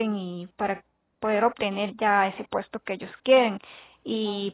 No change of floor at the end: Yes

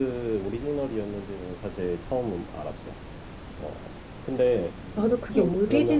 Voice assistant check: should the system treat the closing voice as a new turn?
Yes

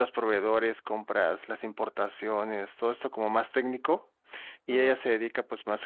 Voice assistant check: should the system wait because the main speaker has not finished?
Yes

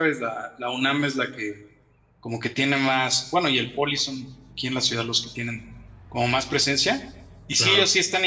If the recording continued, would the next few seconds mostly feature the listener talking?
No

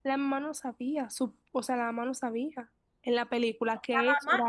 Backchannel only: No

